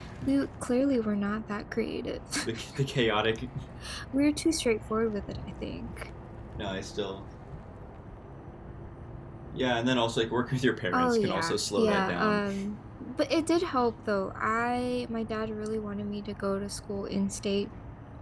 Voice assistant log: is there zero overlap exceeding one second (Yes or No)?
No